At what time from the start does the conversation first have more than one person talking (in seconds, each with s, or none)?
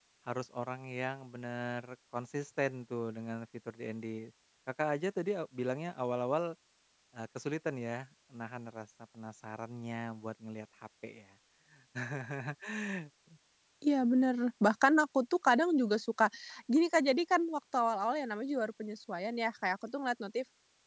none